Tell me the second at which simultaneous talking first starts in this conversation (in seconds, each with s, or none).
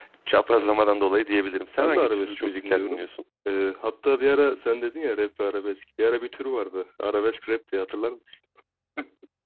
1.8 s